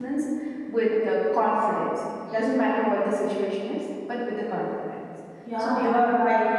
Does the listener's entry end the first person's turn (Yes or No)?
Yes